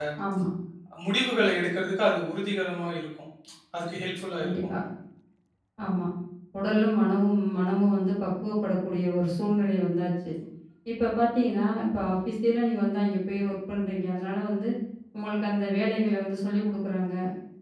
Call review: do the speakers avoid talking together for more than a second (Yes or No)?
Yes